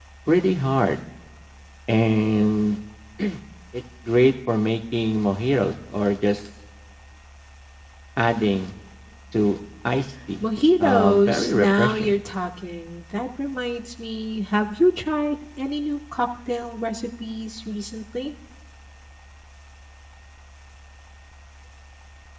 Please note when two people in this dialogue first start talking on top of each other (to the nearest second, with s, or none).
11 s